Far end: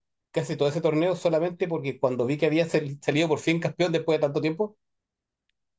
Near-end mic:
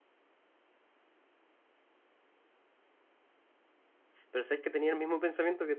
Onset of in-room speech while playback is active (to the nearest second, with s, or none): 4 s